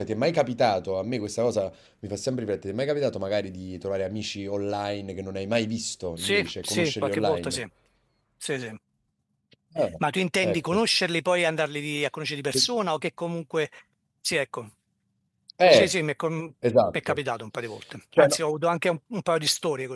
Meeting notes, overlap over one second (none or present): present